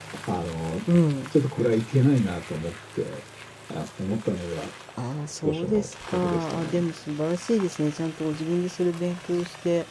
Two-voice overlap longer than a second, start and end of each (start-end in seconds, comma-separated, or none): 5.4-6.8